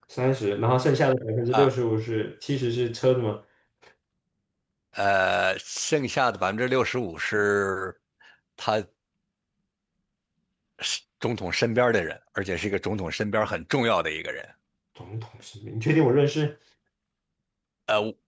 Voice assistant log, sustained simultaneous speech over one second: none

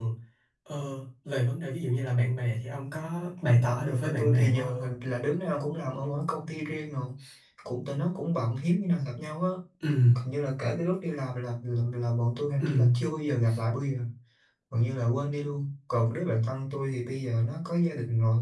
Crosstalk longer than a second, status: present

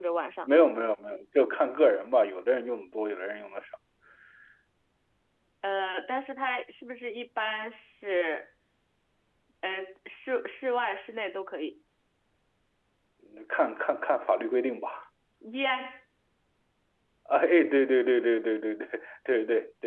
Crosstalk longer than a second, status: none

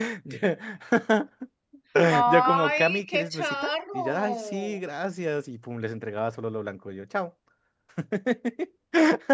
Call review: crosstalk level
present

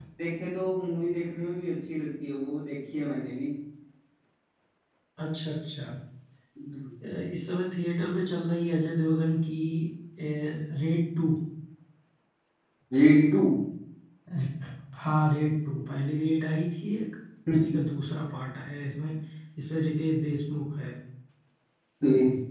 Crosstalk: none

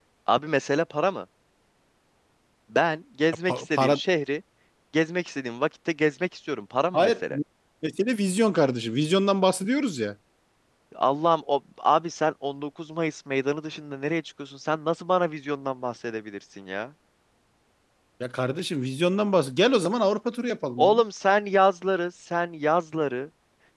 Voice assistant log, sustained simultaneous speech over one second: none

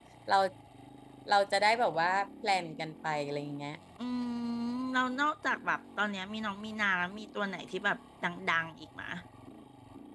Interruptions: none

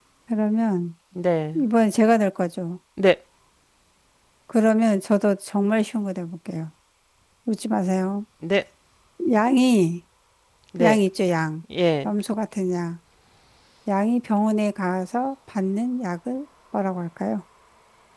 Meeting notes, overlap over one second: none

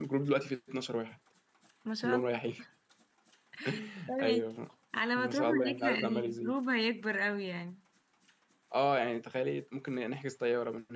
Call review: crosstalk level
present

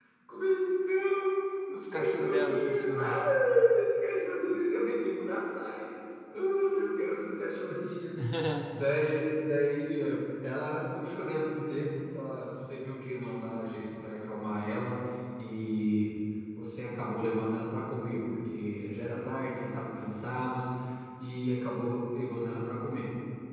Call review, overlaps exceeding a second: present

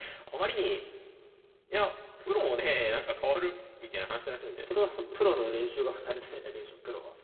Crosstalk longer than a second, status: none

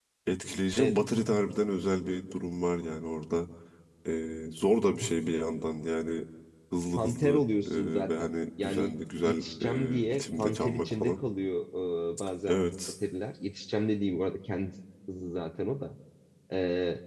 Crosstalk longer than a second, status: present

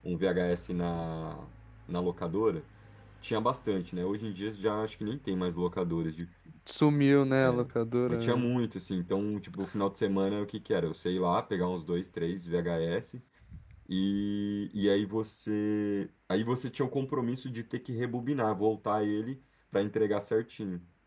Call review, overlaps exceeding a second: none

